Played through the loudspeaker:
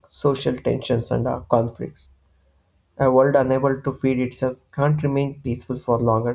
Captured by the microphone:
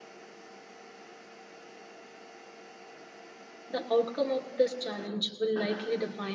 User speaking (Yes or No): Yes